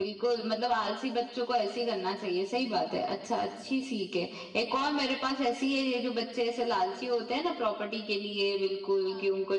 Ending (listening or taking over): listening